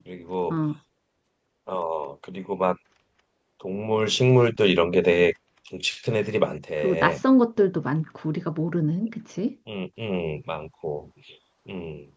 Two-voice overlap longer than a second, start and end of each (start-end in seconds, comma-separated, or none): none